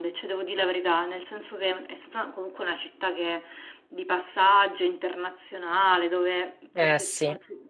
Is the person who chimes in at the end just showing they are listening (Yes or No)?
Yes